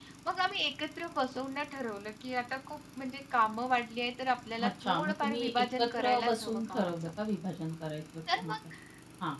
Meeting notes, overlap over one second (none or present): present